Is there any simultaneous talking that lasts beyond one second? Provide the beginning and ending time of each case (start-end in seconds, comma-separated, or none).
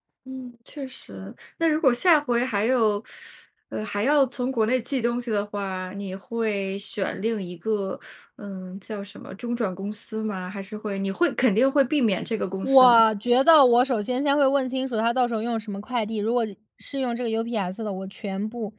none